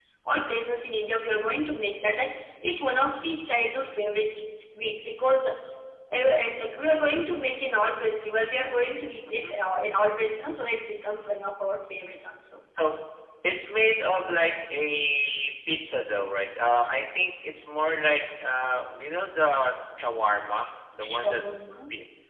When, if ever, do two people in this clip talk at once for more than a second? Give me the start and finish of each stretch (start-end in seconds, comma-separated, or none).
none